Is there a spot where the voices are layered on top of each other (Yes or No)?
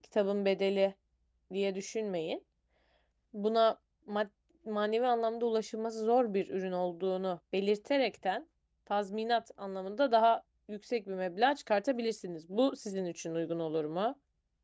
No